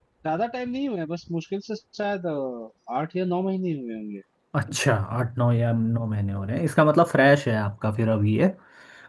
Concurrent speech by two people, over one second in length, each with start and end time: none

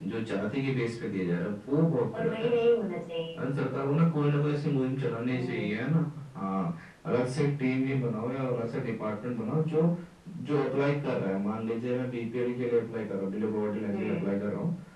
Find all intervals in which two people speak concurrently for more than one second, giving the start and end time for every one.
none

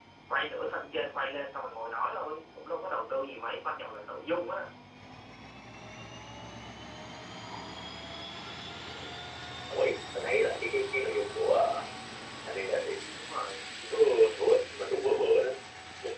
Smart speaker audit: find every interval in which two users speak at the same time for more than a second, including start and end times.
none

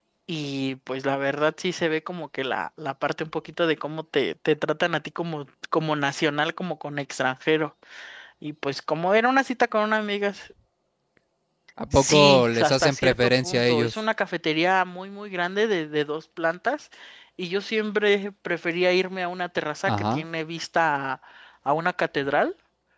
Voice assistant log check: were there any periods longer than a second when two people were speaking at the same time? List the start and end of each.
11.9-13.9

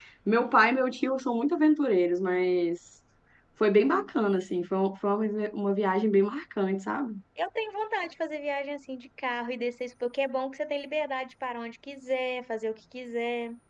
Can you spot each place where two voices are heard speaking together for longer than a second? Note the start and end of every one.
none

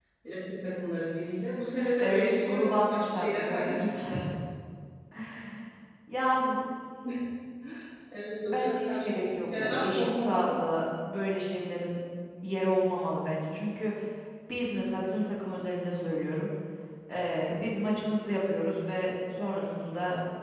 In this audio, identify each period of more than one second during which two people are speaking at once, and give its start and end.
2.0-4.2, 8.4-10.6

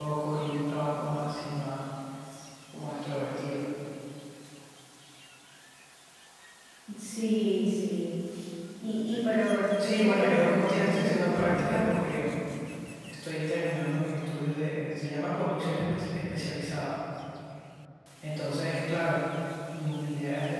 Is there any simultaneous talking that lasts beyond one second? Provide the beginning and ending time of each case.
9.8-11.8

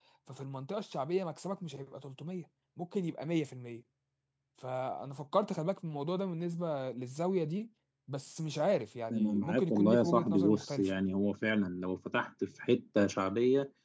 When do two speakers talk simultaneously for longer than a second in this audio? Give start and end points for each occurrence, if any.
9.1-10.9

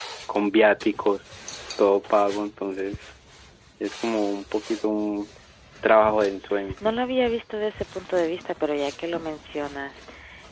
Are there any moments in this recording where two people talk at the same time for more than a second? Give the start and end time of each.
none

